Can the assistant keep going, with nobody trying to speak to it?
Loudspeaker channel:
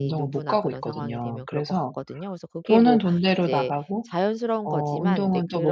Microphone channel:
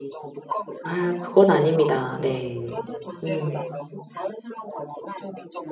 No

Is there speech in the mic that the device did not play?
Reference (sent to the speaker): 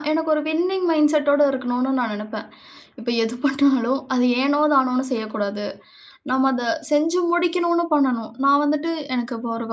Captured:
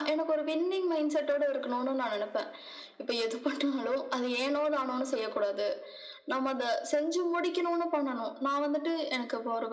No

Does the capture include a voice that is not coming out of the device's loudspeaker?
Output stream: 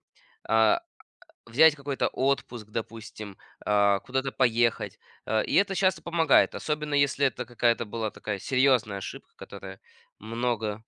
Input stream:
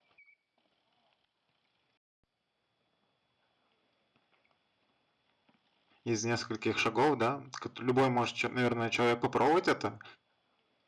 Yes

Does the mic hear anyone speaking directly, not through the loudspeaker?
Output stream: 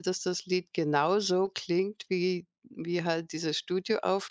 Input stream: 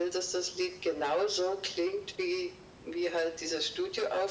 No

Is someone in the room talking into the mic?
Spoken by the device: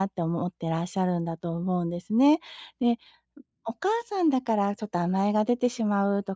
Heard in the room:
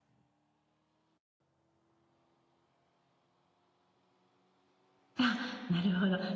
Yes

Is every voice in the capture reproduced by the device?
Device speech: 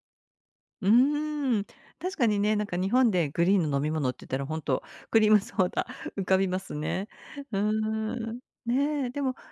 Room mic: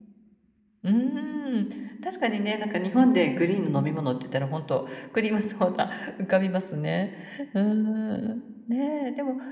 Yes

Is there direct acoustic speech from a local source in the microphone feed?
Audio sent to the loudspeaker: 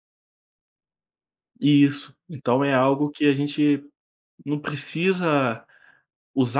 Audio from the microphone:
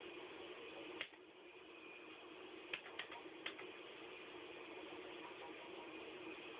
No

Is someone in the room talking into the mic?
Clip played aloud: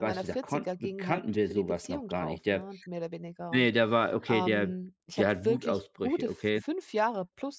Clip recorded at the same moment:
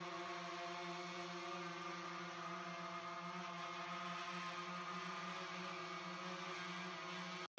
No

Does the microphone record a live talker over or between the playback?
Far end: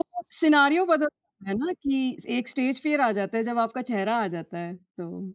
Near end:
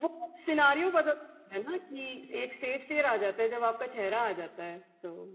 No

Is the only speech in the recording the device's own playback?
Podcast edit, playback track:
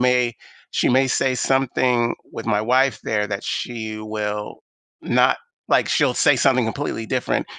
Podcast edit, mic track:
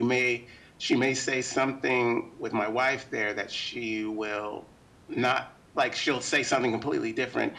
Yes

